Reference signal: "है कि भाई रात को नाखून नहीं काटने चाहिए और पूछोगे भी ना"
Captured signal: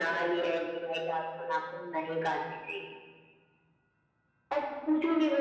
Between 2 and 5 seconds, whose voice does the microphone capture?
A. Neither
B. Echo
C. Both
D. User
B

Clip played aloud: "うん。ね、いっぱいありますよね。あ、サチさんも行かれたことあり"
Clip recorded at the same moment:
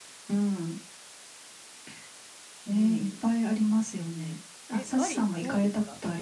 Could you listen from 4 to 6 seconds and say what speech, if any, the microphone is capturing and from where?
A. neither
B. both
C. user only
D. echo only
B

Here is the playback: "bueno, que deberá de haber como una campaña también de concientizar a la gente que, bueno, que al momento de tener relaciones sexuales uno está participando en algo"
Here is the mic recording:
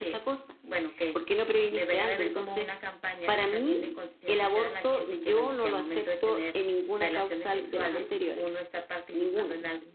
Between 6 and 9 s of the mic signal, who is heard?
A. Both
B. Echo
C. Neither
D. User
A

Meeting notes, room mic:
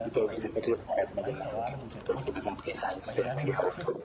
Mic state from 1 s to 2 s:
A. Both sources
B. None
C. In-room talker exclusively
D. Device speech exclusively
A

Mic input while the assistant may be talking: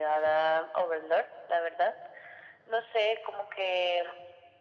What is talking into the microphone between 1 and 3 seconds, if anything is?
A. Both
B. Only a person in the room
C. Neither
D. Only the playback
D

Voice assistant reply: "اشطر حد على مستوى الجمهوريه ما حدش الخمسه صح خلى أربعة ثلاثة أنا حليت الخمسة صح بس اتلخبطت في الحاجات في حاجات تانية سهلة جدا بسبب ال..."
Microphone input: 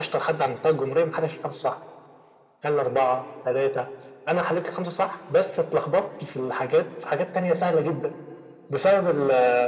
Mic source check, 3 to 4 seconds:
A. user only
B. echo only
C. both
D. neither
B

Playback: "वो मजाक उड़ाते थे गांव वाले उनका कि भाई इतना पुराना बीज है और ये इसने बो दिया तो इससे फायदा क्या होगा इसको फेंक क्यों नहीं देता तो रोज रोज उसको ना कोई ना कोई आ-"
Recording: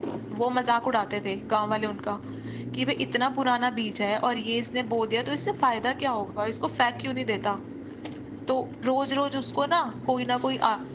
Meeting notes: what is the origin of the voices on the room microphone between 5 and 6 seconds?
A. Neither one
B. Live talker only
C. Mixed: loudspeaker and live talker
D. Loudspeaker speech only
D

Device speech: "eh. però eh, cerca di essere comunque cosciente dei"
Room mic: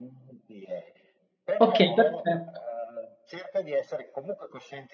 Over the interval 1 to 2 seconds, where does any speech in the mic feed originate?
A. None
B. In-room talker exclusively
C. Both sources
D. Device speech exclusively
C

